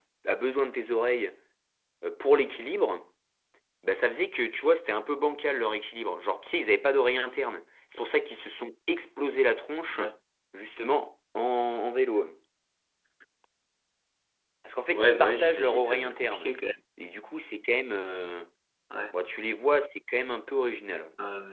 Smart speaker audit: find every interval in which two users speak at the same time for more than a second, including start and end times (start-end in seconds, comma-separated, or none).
14.9-16.5